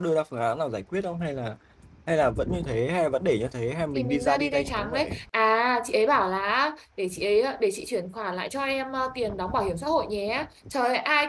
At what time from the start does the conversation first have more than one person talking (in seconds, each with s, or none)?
3.9 s